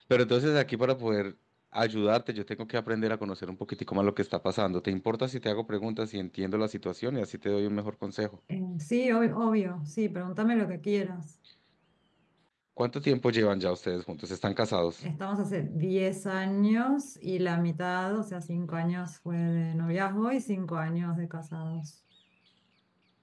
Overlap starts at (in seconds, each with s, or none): none